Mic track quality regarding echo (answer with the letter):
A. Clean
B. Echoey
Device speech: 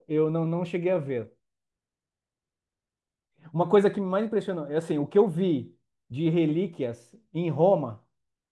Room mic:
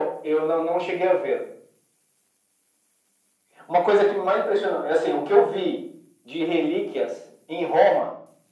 B